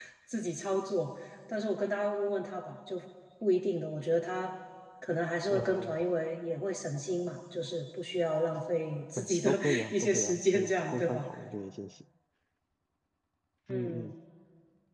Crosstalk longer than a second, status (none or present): present